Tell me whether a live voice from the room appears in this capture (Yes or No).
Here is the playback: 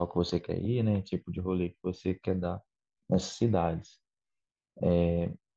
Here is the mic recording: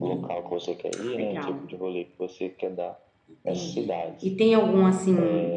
Yes